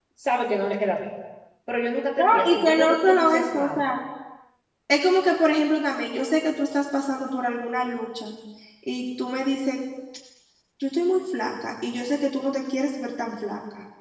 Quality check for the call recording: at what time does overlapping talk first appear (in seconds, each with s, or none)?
2.2 s